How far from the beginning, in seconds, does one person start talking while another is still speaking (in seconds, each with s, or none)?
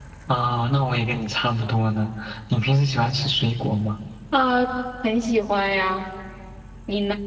none